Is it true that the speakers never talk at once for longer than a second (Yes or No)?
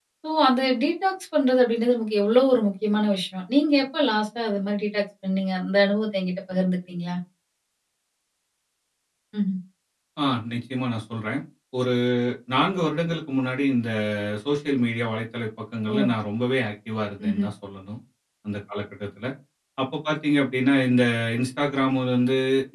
Yes